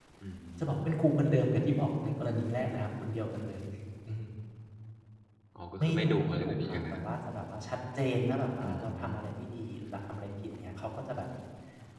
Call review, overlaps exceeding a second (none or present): present